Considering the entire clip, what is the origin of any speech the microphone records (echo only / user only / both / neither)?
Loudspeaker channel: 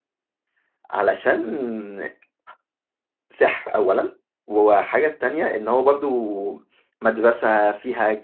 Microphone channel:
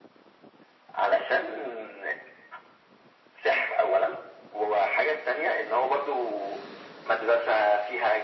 echo only